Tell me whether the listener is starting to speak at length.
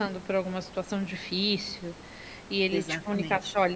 No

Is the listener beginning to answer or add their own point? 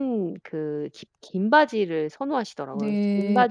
Yes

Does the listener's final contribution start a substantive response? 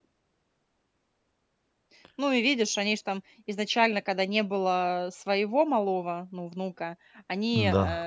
No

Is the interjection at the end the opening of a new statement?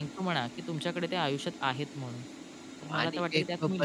Yes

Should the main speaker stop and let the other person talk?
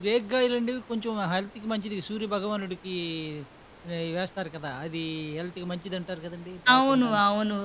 Yes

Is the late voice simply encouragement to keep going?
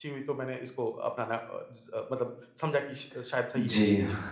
No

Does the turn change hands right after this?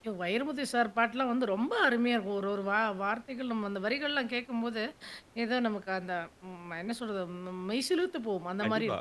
Yes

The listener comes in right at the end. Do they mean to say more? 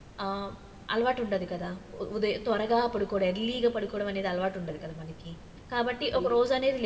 No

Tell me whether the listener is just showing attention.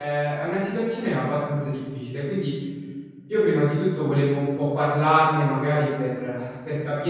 Yes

